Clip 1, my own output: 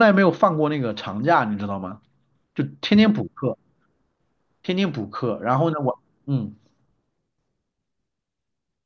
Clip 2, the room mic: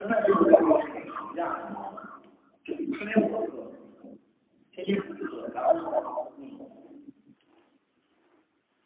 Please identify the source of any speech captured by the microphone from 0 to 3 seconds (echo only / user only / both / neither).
echo only